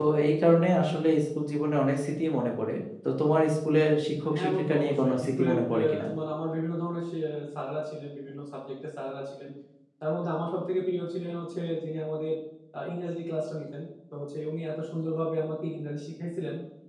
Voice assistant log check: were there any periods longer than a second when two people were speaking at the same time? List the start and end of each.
4.4-6.0

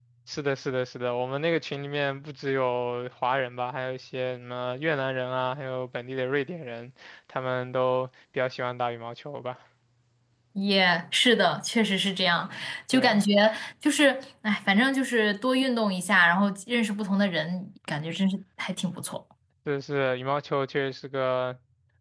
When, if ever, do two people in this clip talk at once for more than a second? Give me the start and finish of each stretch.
none

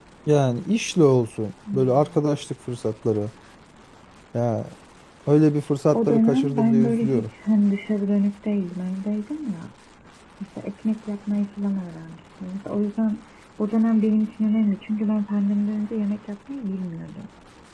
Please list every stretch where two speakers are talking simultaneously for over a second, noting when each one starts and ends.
5.9-7.3

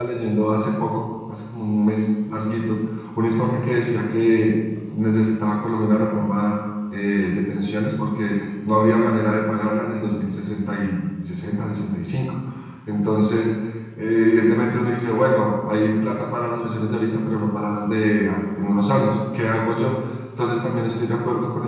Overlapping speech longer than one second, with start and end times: none

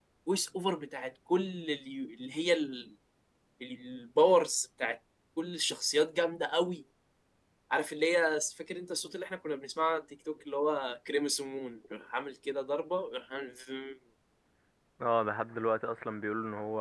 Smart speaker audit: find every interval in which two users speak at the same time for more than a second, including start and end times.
none

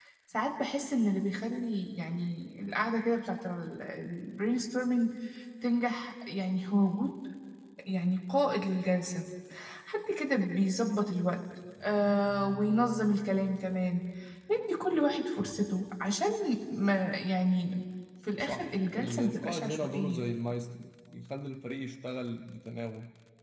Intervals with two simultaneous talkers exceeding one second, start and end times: 18.4-20.2

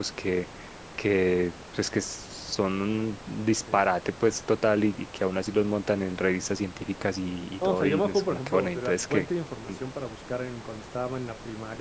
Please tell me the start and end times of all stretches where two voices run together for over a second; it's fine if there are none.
7.6-9.3

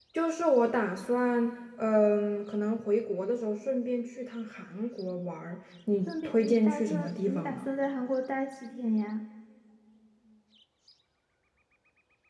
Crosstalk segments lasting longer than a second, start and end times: 6.1-7.7

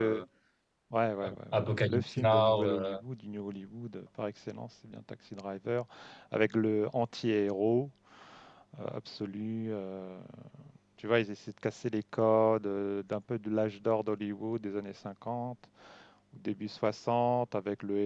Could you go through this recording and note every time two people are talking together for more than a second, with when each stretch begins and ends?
1.5-3.0

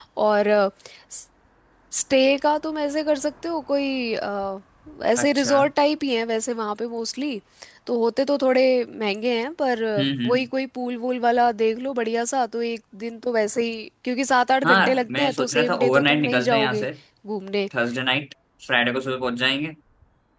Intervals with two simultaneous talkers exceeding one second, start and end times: 14.6-16.9

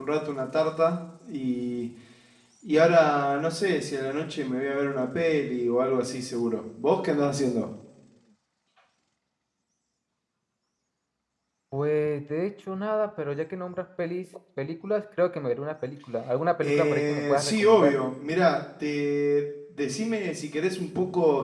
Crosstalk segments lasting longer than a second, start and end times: 16.6-17.9

